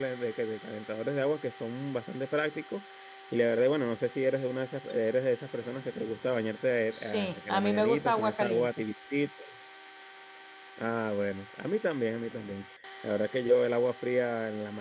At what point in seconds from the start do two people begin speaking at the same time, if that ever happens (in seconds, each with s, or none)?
6.9 s